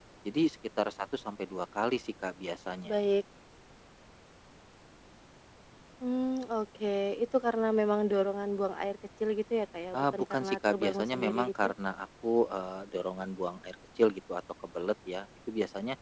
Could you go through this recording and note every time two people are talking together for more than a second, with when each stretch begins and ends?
9.9-11.7

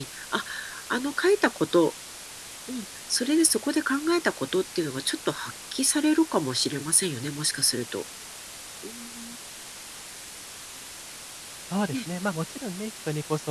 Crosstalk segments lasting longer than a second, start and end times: none

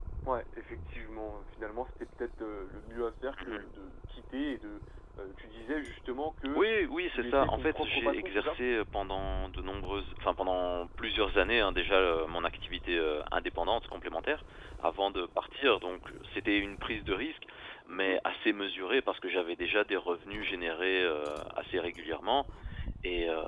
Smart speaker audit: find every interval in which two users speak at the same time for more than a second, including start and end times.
7.1-8.6

